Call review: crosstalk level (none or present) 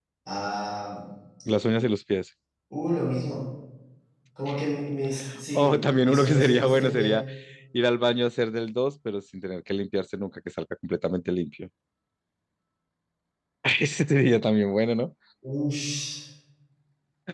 present